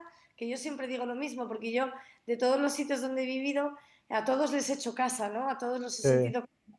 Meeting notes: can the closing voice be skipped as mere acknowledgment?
Yes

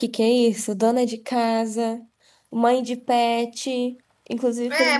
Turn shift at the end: Yes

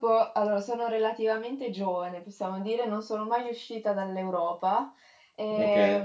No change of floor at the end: Yes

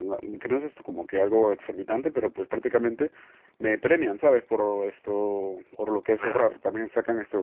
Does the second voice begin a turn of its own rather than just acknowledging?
No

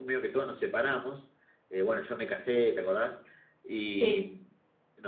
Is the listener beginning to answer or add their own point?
No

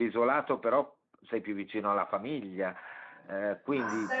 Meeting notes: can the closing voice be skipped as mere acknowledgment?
No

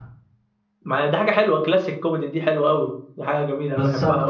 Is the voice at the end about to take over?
Yes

